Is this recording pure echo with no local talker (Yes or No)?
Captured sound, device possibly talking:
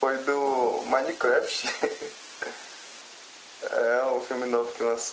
Yes